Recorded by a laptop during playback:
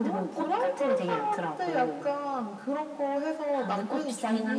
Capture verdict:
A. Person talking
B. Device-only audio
B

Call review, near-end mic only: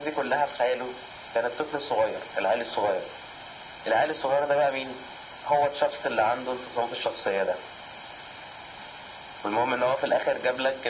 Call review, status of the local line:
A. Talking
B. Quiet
B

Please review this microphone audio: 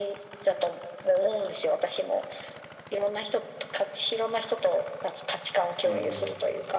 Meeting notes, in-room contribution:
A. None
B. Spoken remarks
B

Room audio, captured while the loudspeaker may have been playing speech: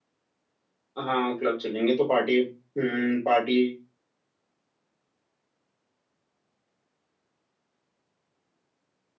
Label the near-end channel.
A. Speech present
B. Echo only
A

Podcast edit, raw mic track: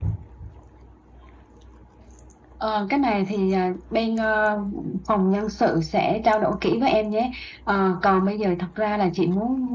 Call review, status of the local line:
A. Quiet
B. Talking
A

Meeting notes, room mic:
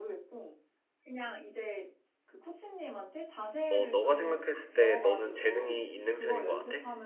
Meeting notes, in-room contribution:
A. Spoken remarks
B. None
A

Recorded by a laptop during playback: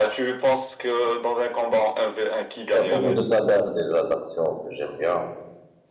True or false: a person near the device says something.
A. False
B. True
B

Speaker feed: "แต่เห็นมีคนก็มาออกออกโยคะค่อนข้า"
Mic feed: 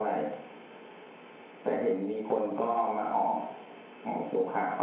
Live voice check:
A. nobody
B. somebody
A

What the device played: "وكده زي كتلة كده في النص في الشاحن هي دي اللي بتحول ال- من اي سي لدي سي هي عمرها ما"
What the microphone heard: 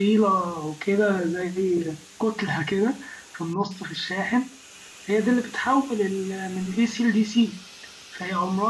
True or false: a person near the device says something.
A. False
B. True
A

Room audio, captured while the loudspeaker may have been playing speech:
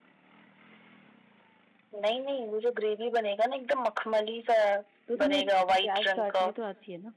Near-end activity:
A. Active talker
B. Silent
A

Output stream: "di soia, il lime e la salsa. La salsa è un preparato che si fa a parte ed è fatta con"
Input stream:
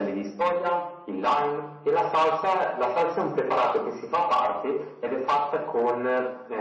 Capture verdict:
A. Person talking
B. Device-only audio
B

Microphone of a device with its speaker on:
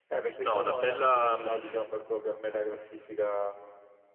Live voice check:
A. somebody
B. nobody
A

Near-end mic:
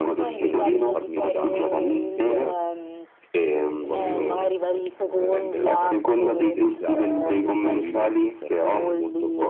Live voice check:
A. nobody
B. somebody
B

